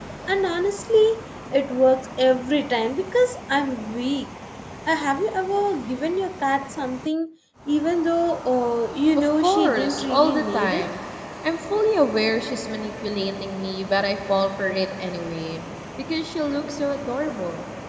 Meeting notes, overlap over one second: present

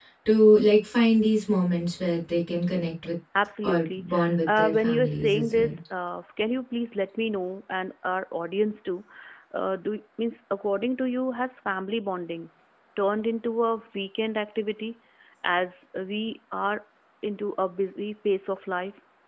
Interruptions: present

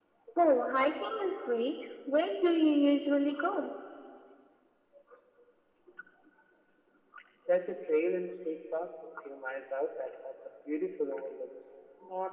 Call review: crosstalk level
none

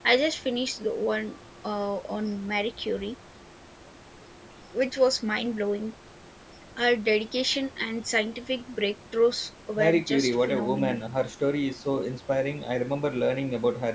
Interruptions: present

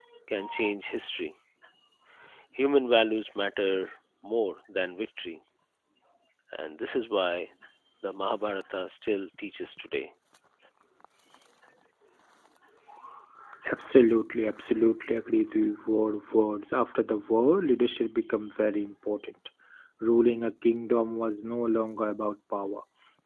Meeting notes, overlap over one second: none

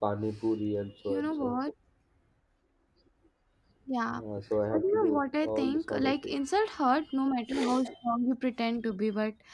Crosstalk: present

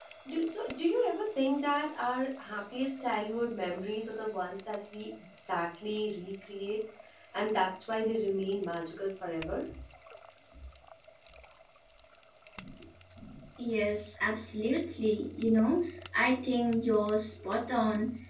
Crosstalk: none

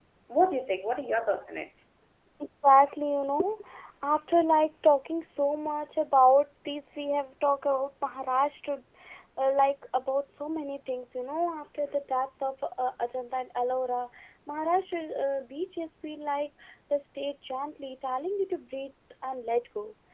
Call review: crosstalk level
none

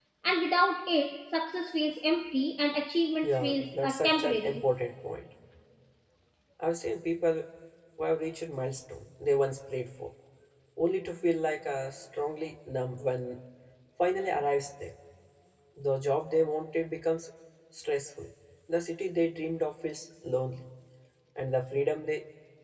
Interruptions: present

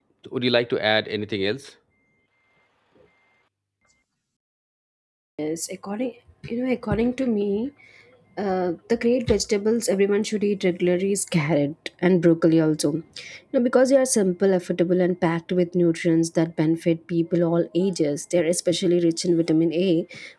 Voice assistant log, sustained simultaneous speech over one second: none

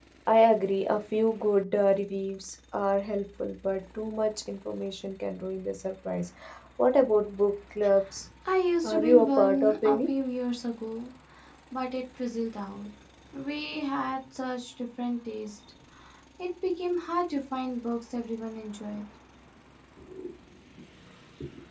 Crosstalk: present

